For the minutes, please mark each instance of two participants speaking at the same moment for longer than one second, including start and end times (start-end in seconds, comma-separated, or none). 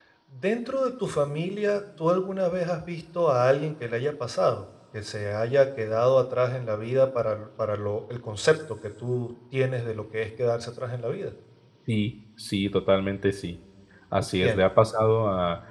none